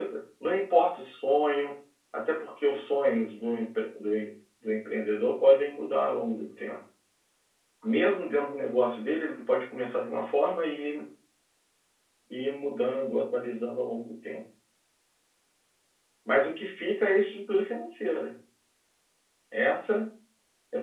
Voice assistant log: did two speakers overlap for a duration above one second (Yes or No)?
No